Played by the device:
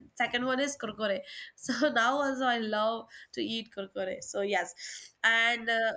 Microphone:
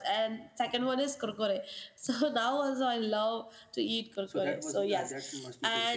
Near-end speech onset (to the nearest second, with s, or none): 4 s